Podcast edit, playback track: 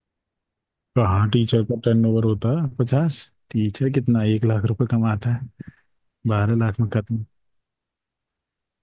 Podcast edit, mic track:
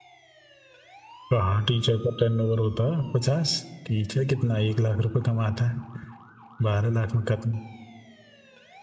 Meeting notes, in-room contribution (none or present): none